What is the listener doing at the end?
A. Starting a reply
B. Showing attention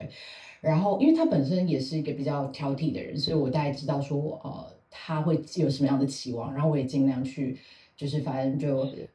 B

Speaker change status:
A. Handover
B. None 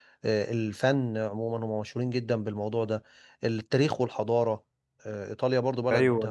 A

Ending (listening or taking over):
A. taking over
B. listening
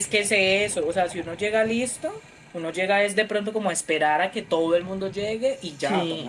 A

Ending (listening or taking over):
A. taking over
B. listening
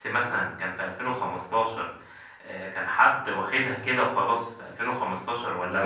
B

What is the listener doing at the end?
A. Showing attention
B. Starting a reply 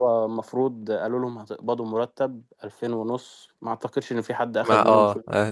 B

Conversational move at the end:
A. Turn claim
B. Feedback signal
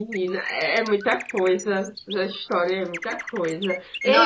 B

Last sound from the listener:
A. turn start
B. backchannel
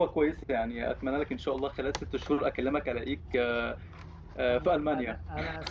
A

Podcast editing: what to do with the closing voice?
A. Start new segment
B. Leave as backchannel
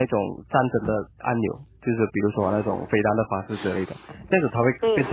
B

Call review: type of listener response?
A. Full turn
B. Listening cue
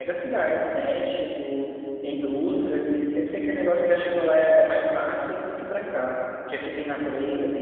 B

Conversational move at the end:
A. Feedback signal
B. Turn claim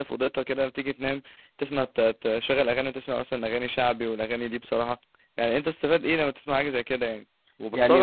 B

